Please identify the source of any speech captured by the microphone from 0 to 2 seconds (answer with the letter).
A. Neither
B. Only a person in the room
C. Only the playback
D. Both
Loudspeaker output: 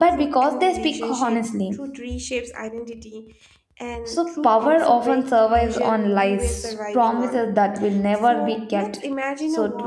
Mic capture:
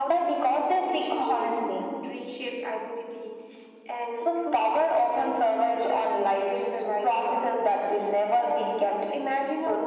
C